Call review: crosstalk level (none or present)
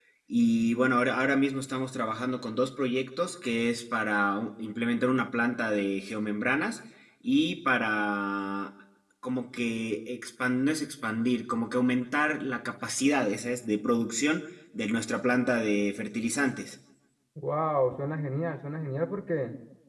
none